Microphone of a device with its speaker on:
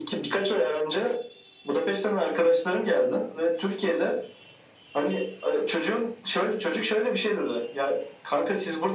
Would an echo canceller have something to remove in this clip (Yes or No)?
Yes